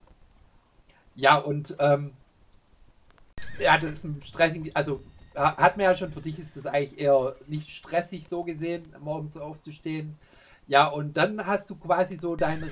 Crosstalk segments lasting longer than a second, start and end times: none

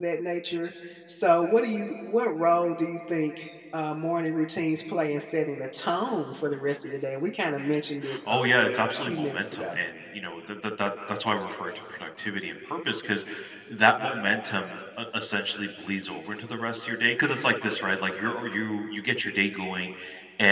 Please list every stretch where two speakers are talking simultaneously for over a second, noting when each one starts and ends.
8.3-9.7

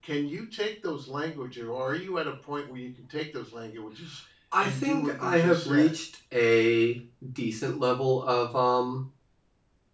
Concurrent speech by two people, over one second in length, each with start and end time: 4.6-6.0

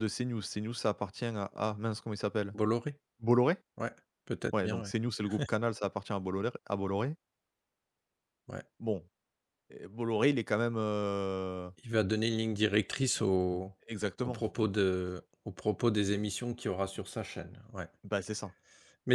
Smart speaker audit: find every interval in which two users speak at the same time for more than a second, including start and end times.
none

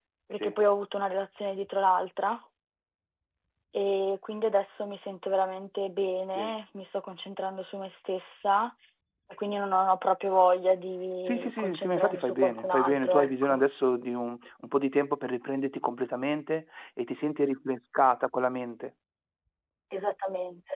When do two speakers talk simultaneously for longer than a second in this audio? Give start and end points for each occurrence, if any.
11.2-13.6

